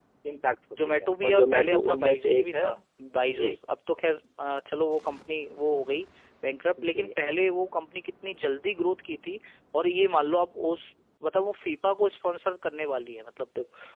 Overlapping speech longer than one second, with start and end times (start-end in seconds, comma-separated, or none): 0.9-2.7